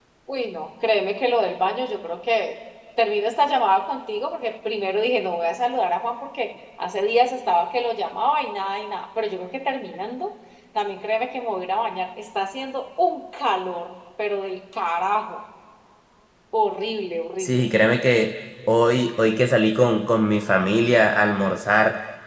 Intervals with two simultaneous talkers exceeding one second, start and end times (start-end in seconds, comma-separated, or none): none